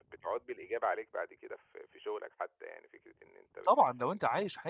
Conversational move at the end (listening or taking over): taking over